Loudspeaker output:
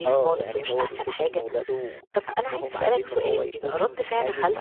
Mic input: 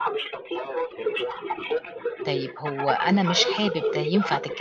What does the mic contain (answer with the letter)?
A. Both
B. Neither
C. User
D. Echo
A